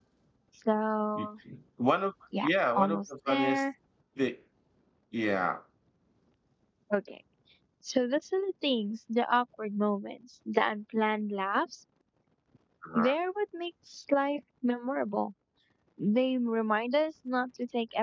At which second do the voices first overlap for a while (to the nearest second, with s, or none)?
2 s